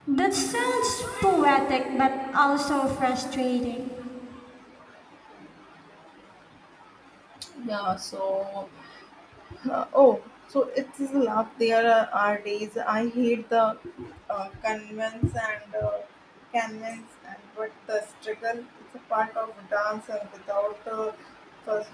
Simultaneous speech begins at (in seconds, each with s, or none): none